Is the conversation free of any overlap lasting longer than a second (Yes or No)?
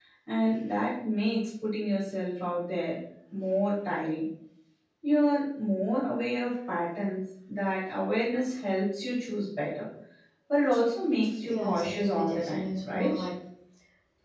No